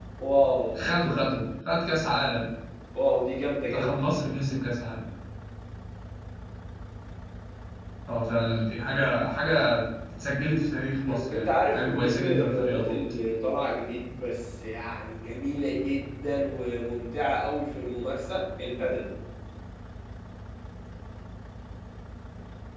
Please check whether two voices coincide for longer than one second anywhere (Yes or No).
Yes